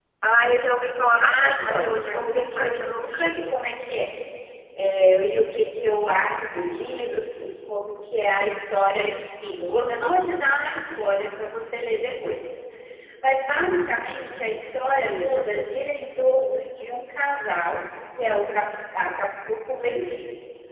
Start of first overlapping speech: 1.2 s

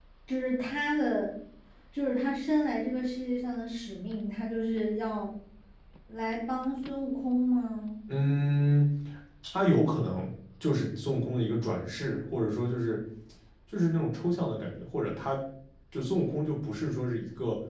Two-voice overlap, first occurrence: none

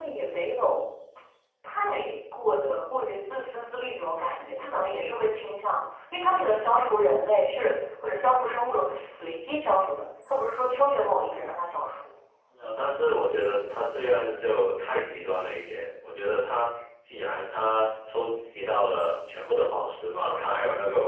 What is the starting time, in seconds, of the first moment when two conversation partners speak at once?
none

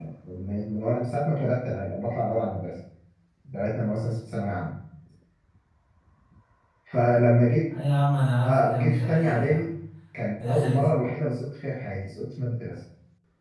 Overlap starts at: 8.4 s

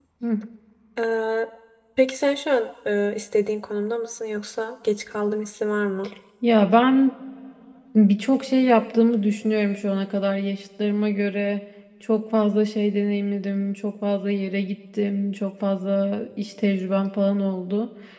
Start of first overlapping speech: none

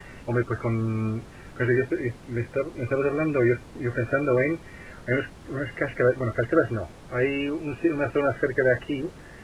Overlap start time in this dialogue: none

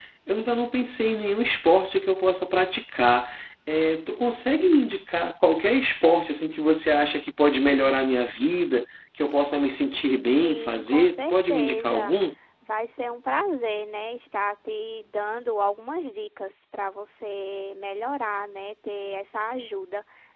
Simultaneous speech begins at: 10.4 s

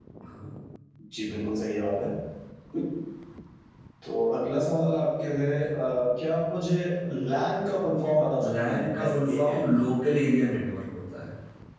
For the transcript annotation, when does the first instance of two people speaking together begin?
8.4 s

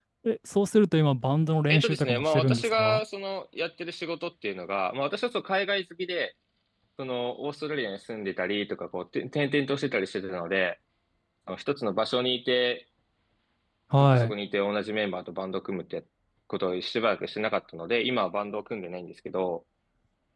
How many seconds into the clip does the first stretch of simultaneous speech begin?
1.7 s

